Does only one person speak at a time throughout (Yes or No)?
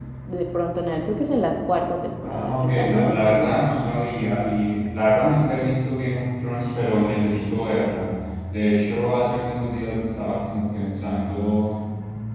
No